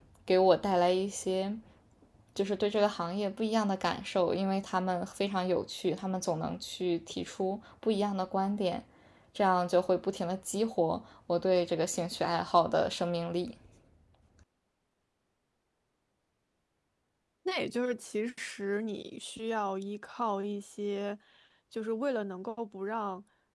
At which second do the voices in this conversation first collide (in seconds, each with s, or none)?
none